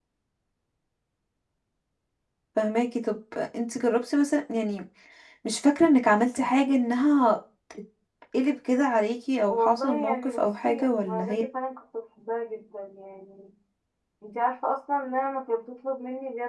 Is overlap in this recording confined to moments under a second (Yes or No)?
No